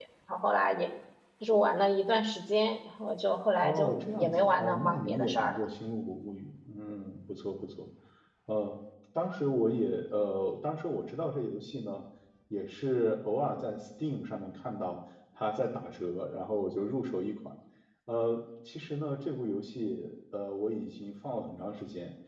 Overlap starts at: 3.6 s

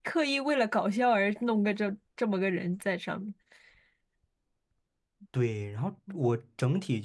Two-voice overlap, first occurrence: none

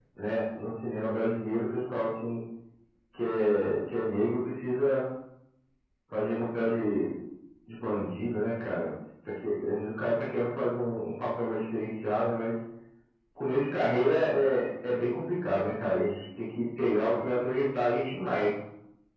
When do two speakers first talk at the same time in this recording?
none

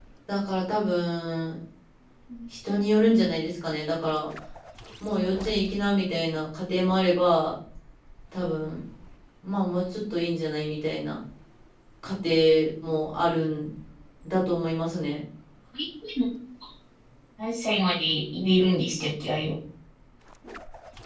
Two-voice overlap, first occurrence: none

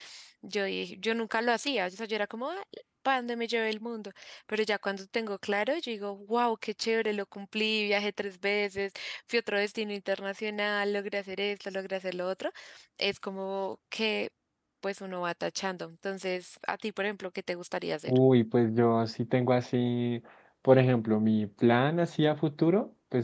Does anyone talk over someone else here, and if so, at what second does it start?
none

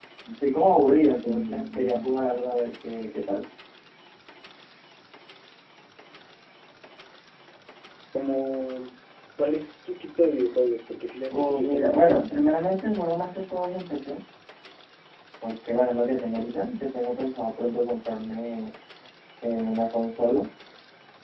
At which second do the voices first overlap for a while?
11.3 s

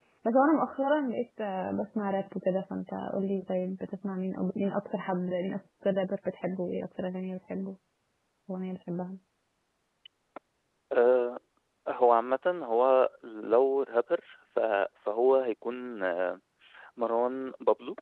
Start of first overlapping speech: none

